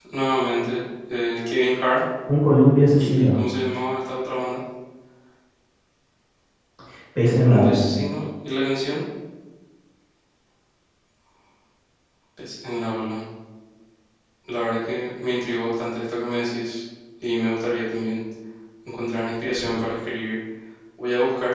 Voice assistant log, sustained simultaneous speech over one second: none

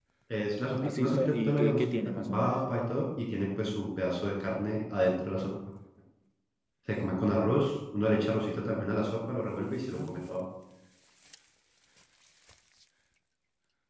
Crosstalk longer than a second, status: present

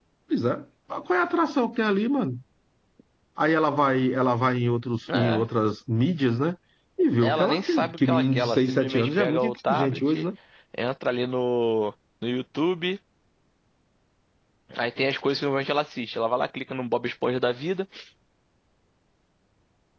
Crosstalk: present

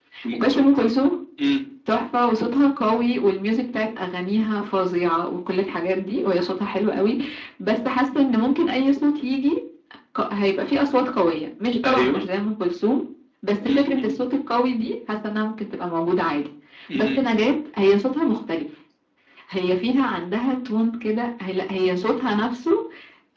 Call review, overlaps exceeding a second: none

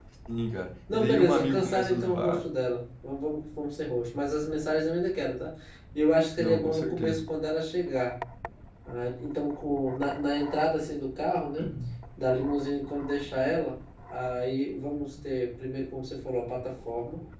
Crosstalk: present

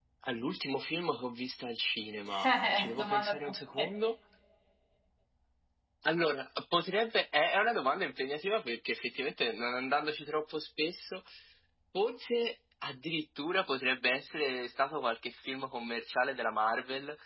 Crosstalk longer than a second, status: present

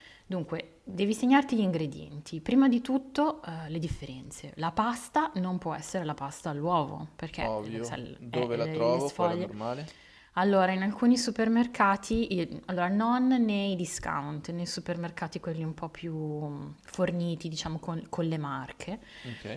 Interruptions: present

